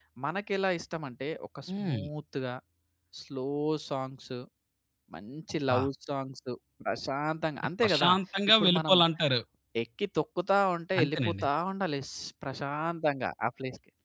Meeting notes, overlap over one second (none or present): none